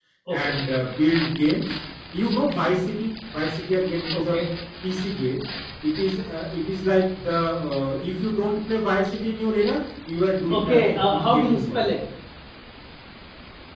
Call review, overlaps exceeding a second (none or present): present